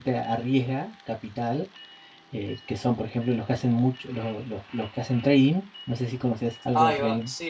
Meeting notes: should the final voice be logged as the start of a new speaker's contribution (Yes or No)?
Yes